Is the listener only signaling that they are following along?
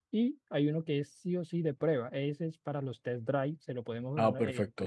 No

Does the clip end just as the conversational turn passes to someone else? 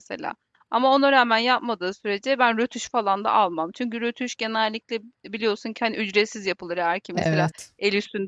No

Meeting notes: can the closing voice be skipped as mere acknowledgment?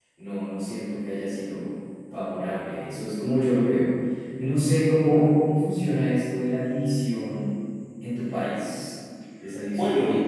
No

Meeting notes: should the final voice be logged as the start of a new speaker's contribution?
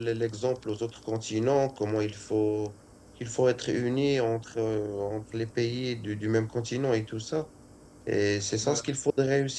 No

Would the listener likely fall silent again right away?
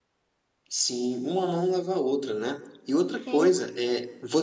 Yes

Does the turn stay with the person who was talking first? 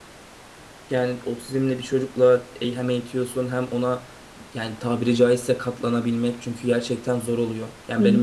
Yes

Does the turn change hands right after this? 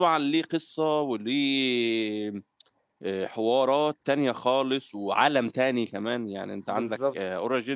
No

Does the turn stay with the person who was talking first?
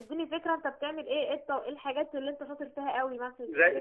No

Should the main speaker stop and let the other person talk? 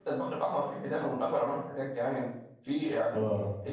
No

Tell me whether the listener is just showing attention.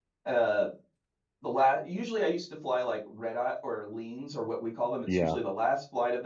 Yes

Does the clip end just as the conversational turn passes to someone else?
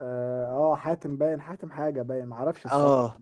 Yes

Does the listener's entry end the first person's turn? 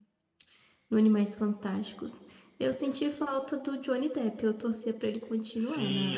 Yes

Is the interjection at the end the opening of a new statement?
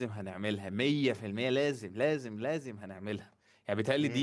No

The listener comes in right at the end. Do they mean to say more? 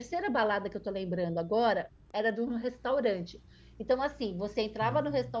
No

